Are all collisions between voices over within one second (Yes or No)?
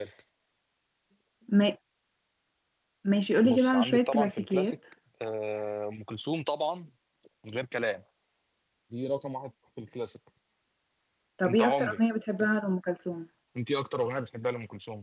No